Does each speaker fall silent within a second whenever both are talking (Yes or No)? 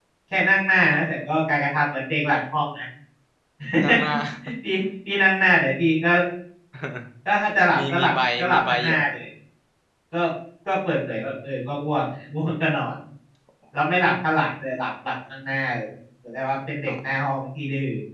No